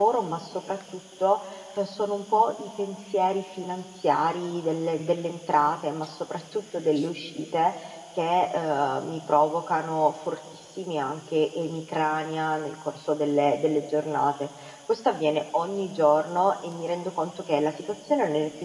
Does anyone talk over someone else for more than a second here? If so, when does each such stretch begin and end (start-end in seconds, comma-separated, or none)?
none